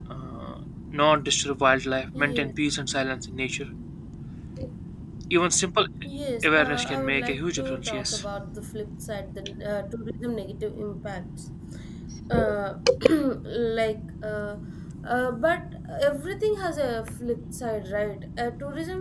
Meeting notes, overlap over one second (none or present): present